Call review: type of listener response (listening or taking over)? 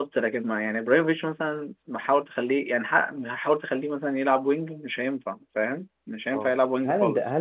taking over